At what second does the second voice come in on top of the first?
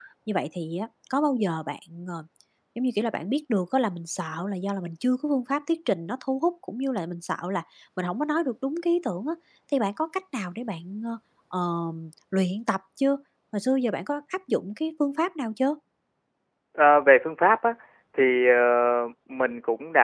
none

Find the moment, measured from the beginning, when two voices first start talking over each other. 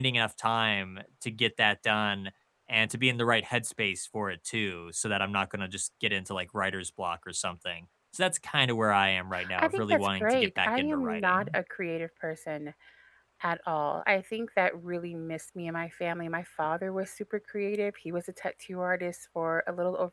9.6 s

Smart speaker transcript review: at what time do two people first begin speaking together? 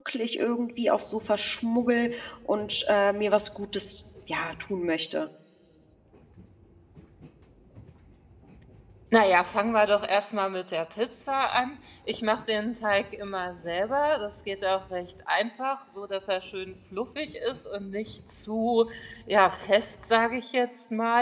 none

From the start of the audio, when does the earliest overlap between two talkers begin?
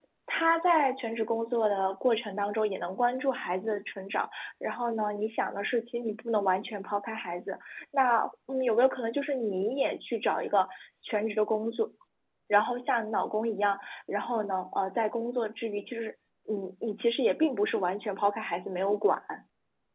none

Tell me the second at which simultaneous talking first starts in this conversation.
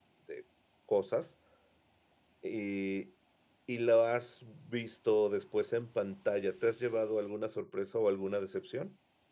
none

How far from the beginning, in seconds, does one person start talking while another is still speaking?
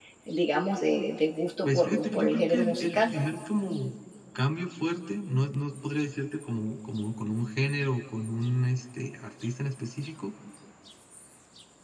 1.6 s

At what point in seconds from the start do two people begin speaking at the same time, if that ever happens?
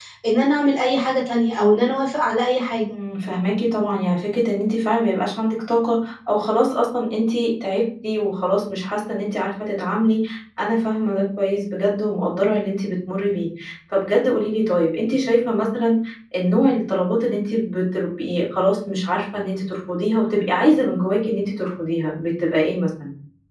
none

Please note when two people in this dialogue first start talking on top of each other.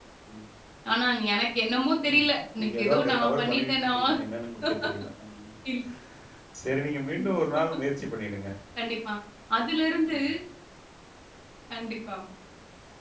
2.1 s

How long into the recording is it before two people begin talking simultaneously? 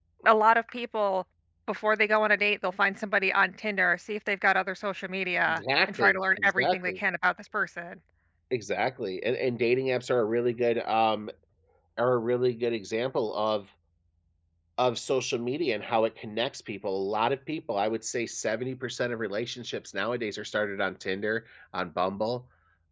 5.5 s

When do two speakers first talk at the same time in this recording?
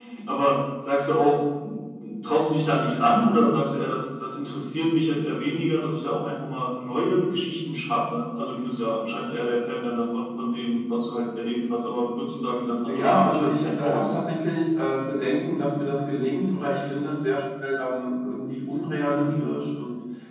12.9 s

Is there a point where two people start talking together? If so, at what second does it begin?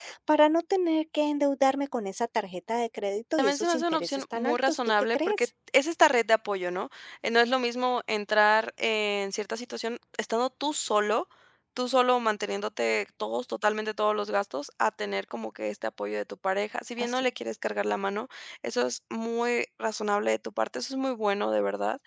3.4 s

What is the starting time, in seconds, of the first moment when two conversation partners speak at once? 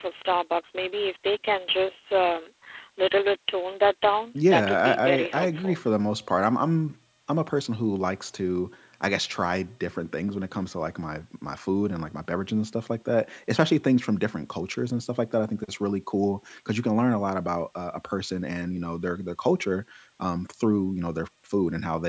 4.3 s

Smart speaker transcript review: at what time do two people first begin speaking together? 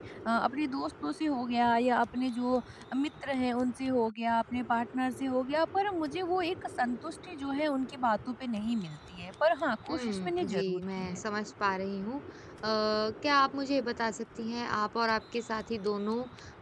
9.9 s

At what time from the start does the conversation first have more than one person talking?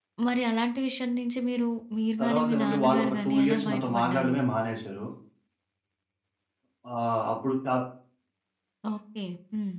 2.2 s

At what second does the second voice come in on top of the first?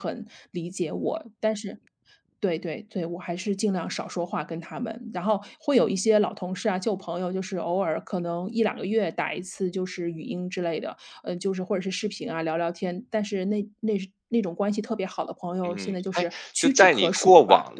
15.7 s

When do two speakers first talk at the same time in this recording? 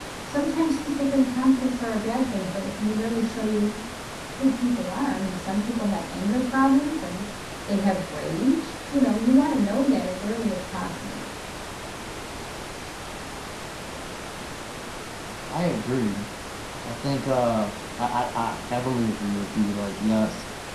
none

